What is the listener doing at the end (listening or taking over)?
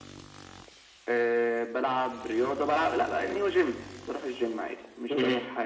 listening